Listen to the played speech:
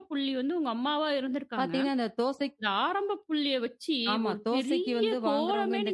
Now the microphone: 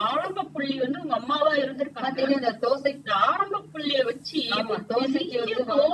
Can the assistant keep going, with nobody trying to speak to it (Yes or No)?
Yes